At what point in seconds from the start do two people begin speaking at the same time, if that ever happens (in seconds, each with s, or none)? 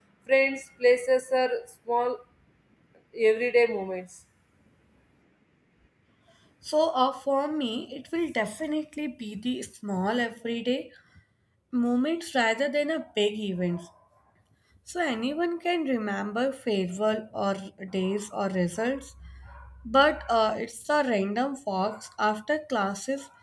none